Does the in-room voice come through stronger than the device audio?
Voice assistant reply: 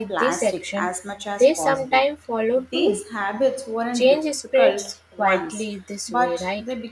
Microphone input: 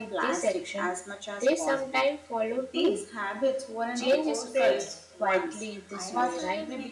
No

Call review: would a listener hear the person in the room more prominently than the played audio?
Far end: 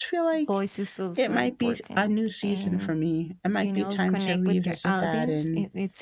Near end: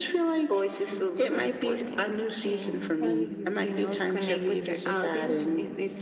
No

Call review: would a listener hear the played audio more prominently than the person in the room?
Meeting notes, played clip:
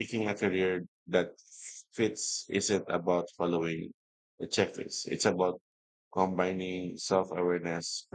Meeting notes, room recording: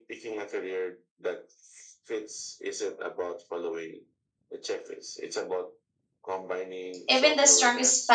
No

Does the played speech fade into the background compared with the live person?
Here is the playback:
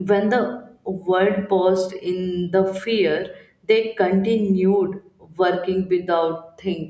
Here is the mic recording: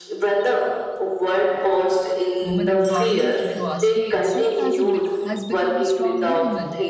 No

